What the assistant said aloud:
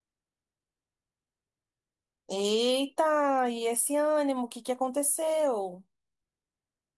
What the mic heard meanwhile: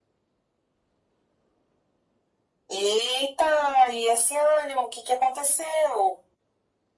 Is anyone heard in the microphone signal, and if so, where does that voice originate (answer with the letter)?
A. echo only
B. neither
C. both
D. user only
A